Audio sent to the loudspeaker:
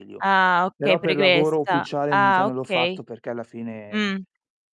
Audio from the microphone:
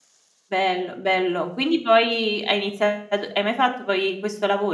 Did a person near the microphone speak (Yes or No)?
Yes